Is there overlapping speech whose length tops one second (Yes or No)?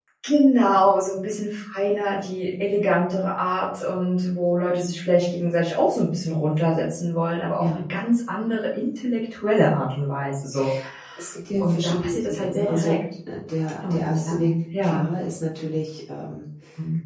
Yes